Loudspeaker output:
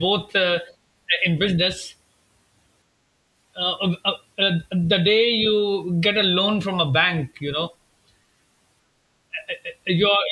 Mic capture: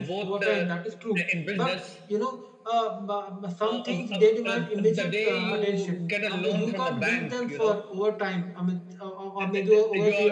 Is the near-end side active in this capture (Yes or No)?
Yes